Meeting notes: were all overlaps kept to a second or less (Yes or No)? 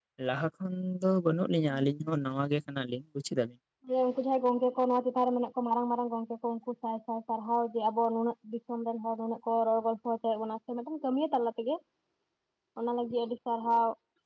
Yes